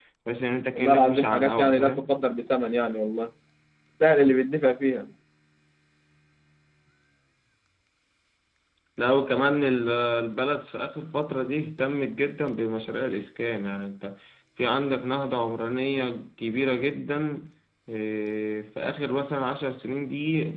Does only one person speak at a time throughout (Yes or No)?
No